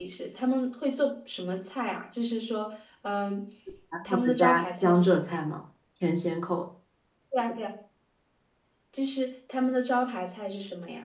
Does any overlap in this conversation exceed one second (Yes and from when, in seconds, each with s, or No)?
Yes, from 4.0 s